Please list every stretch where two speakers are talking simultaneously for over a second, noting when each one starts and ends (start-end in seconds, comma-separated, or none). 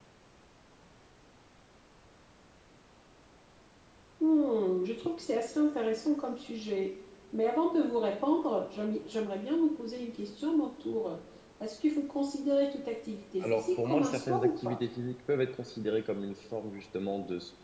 13.4-14.8